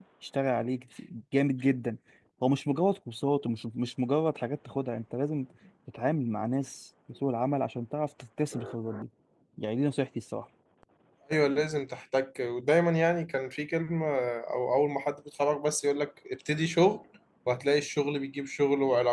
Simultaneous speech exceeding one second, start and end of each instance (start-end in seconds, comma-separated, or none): none